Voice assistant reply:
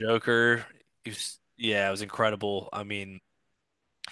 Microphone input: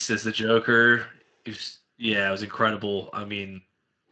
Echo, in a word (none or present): present